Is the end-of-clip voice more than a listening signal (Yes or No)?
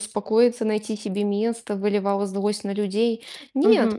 Yes